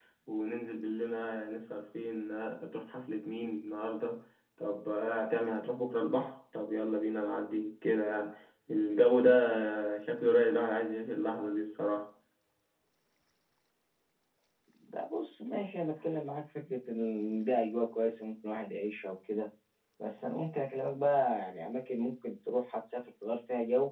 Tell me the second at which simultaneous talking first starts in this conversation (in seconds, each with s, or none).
none